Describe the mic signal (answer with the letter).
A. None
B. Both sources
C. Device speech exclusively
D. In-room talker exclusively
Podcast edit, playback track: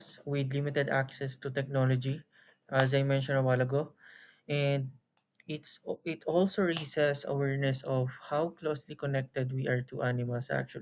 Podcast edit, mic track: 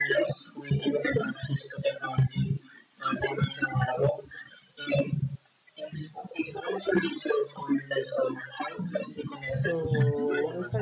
B